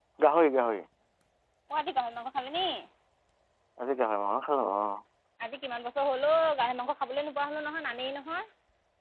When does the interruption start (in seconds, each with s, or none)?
none